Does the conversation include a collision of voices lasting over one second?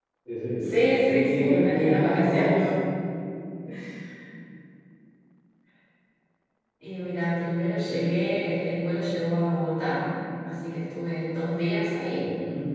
Yes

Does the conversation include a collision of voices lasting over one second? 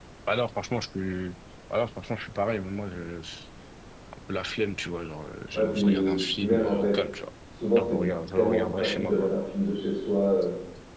Yes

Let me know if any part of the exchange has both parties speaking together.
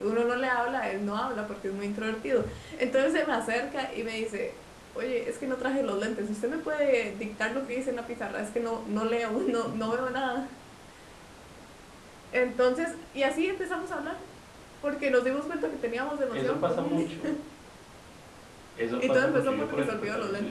Yes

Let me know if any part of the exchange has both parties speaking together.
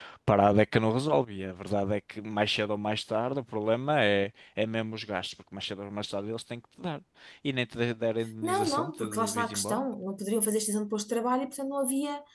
Yes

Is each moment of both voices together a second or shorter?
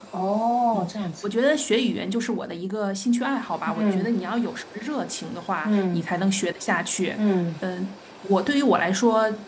Yes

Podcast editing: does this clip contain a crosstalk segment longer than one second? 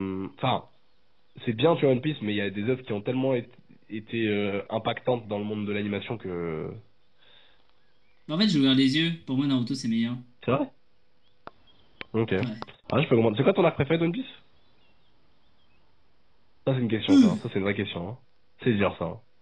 No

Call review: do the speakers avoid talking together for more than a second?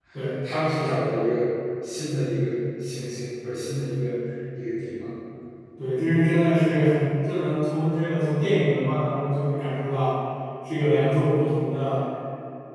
Yes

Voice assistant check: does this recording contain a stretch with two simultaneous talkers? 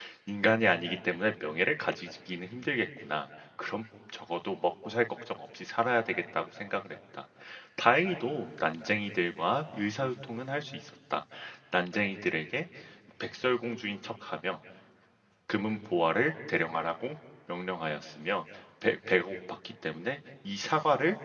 No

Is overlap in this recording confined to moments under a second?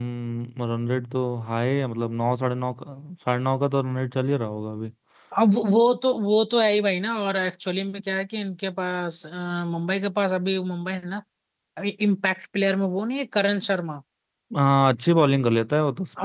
Yes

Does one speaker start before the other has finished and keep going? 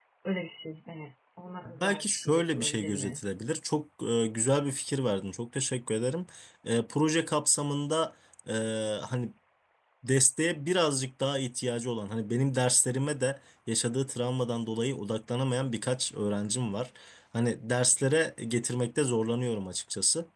Yes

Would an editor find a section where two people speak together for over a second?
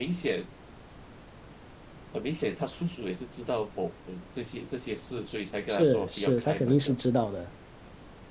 Yes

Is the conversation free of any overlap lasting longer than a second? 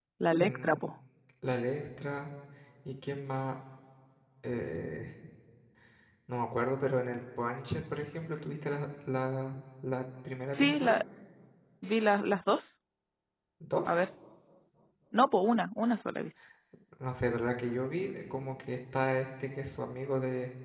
Yes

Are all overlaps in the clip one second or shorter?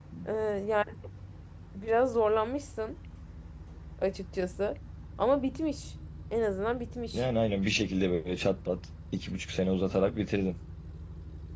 Yes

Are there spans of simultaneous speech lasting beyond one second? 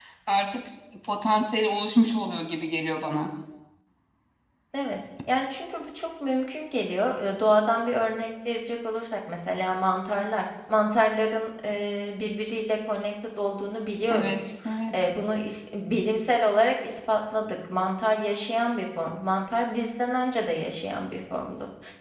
No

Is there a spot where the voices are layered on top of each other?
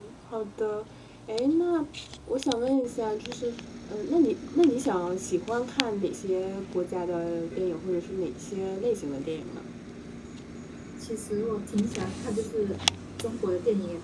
No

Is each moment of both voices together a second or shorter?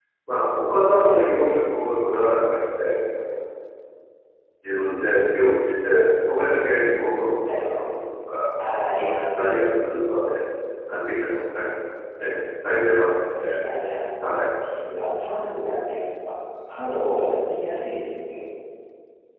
Yes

